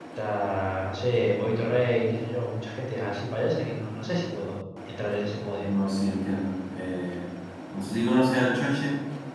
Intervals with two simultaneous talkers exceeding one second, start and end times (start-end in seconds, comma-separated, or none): none